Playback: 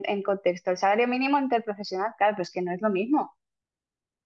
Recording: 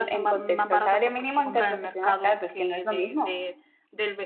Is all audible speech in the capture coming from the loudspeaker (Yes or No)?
No